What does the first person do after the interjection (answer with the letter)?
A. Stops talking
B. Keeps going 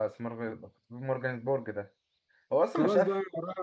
A